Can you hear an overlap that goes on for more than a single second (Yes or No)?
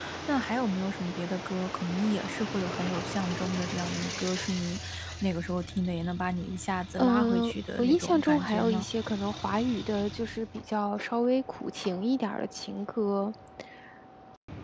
Yes